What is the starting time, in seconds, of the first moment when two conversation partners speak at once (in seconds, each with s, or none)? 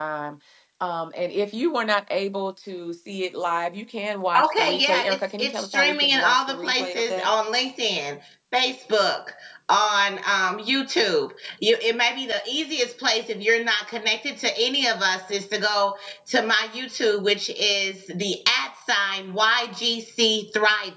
4.3 s